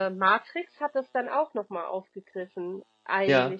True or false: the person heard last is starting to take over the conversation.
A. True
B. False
B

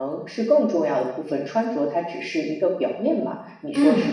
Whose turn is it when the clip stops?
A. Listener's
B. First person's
A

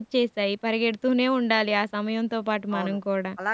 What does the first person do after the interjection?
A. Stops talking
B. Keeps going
A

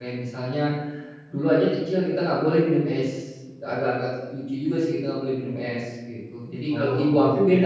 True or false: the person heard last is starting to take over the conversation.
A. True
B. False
A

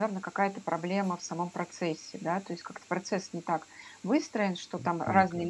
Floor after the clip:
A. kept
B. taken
A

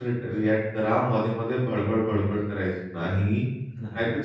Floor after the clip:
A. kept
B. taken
A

